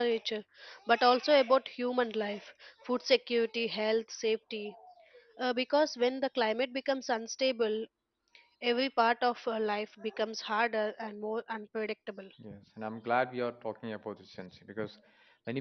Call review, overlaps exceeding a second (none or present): none